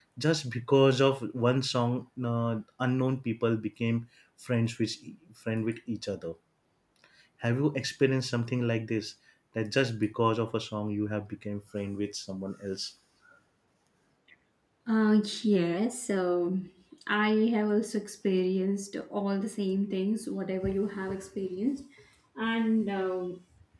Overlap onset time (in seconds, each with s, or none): none